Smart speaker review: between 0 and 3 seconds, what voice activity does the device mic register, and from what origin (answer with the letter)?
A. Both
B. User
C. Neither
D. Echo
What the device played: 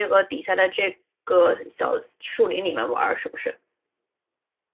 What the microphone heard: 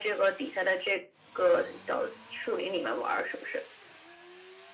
D